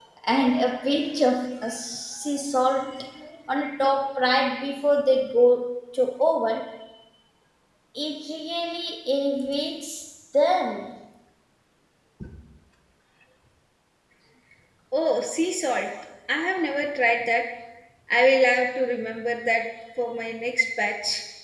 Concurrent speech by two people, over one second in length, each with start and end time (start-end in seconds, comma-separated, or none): none